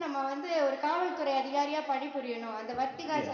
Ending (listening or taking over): taking over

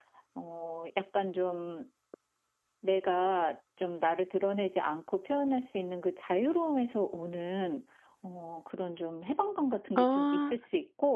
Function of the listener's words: listening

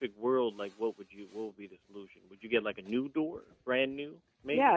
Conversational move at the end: taking over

